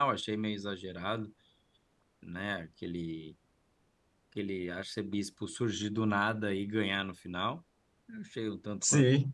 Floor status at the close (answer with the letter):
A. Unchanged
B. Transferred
B